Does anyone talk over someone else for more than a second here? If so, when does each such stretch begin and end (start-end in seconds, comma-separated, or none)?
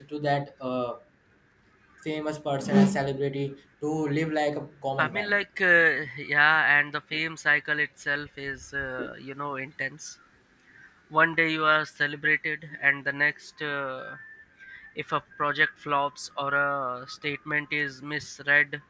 none